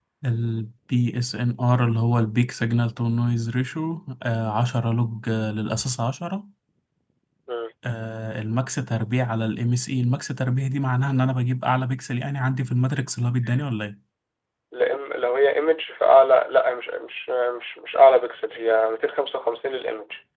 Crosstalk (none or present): none